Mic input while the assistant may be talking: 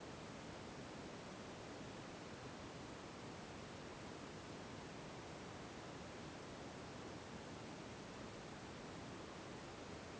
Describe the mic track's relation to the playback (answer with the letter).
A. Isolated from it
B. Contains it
A